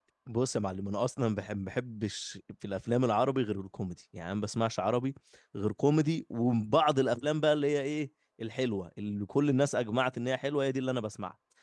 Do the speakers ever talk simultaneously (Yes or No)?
No